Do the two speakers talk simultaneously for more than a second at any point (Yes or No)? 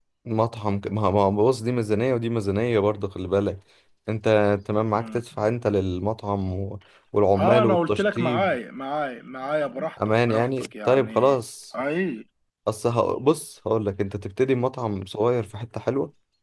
Yes